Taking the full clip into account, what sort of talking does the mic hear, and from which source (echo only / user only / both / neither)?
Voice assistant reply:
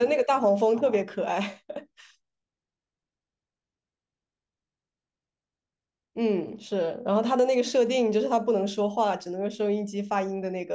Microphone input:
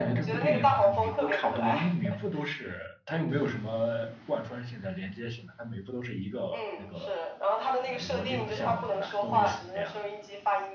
both